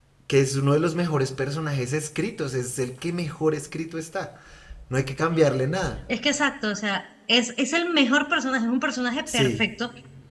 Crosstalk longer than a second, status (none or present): none